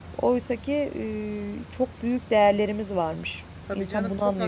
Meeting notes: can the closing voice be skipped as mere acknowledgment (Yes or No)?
No